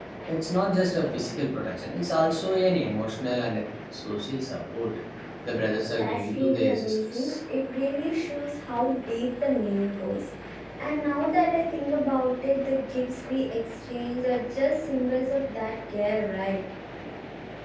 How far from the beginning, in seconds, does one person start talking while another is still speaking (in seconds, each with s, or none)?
6.0 s